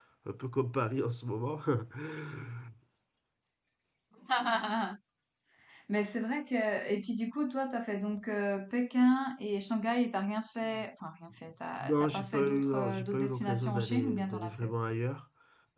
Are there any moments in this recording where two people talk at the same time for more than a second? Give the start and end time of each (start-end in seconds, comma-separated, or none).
11.8-14.7